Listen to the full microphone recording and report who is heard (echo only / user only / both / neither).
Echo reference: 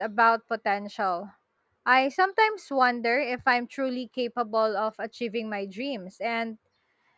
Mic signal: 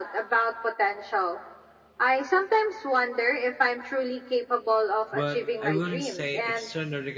both